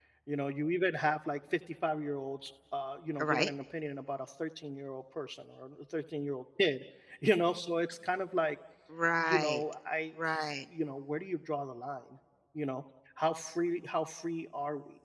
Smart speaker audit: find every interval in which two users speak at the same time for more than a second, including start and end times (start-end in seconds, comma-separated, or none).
none